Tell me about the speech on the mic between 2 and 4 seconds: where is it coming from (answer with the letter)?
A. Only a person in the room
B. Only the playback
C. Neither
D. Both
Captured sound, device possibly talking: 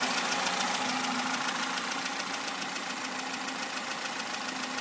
C